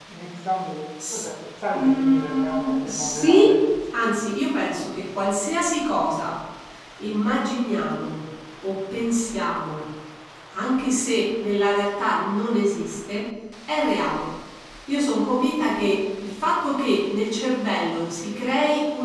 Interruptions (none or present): present